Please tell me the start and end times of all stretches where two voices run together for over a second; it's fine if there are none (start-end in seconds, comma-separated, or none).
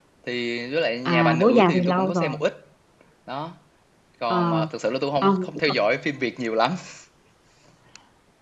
1.1-2.4